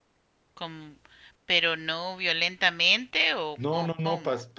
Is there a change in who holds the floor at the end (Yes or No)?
Yes